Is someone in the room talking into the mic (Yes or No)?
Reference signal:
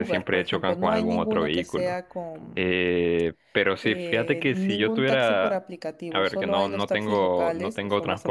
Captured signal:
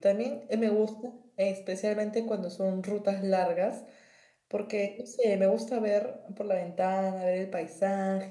Yes